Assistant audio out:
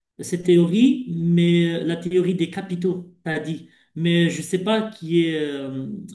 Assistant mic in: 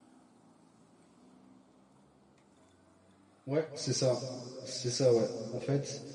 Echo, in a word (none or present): none